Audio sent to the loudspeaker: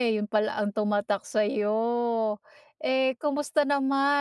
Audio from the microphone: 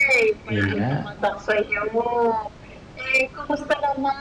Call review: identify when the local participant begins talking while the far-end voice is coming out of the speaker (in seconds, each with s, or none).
0.5 s